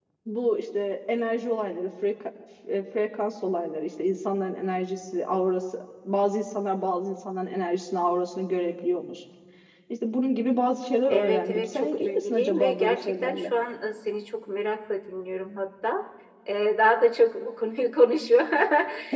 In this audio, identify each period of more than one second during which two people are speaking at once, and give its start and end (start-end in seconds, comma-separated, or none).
11.1-13.5